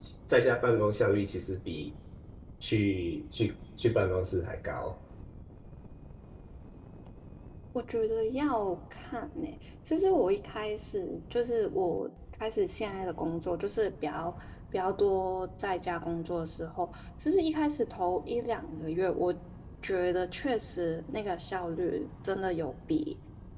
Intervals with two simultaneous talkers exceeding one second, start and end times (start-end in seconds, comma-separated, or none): none